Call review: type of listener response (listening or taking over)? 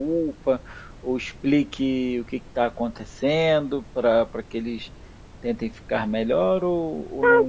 taking over